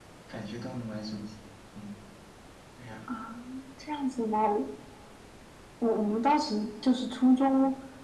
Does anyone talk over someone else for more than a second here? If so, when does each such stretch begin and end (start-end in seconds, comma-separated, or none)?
none